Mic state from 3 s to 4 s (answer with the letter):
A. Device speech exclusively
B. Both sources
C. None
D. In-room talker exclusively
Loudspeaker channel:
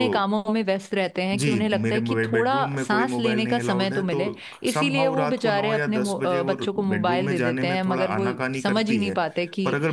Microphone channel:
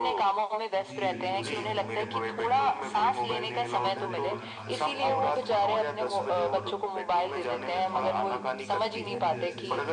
B